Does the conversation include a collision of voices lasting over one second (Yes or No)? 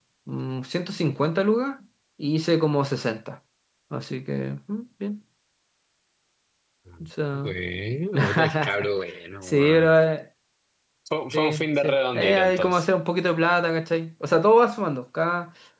Yes